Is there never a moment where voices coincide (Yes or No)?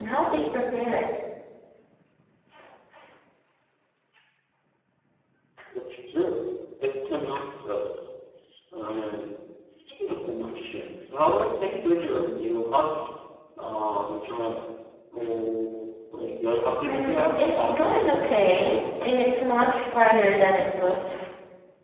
No